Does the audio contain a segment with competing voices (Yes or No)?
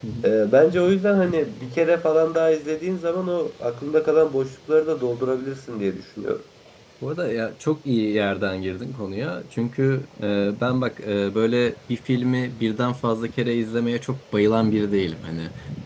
No